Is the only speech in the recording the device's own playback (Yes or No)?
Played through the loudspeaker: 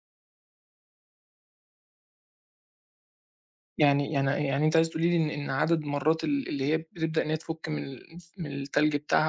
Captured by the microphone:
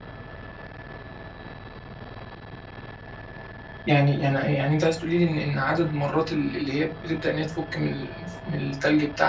Yes